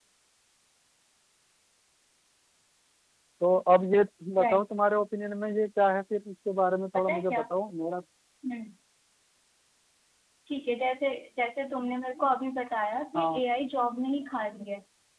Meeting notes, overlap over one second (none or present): none